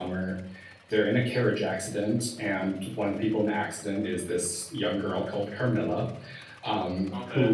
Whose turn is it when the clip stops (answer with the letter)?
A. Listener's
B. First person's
B